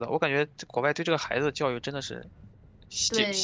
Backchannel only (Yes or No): No